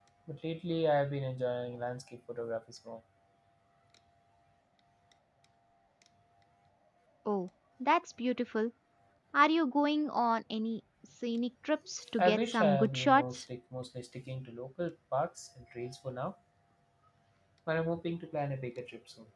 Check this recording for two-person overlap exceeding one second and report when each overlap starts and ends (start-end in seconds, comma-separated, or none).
12.2-13.4